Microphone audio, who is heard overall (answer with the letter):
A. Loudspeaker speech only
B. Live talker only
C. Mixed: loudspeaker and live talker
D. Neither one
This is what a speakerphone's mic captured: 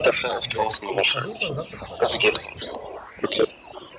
C